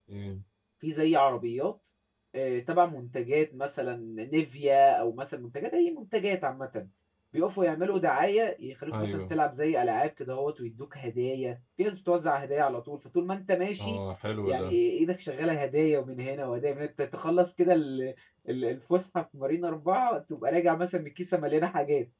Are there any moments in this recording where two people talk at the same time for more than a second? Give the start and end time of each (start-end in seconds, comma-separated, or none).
none